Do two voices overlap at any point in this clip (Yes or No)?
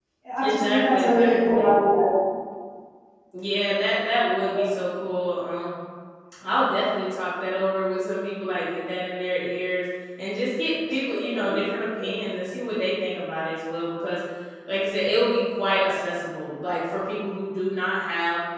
Yes